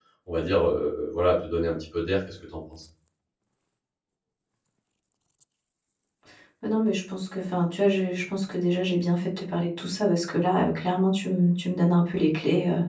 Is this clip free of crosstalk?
Yes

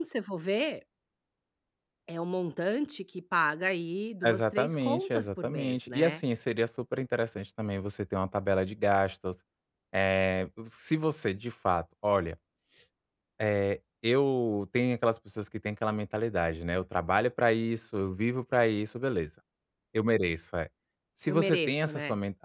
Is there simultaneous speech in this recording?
Yes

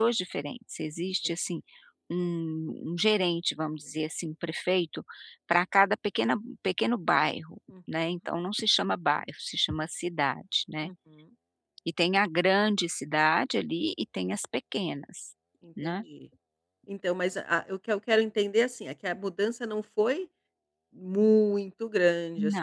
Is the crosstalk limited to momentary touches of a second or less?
Yes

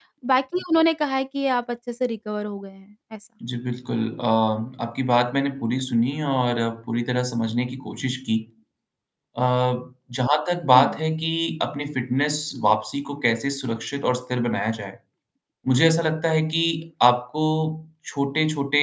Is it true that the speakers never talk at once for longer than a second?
Yes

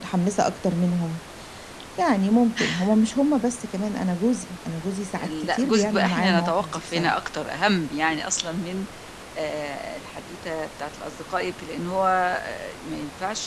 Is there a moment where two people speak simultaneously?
Yes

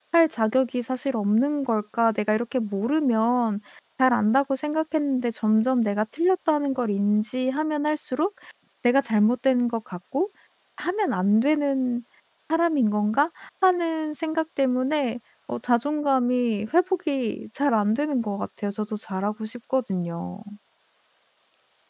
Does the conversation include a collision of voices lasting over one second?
No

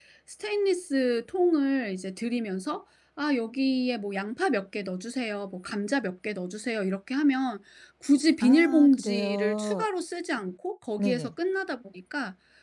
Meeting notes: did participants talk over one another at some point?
Yes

